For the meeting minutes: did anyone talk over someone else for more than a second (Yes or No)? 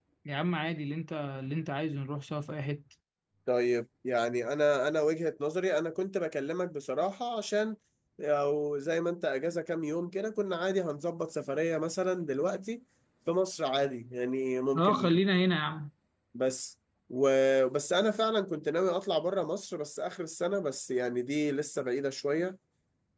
No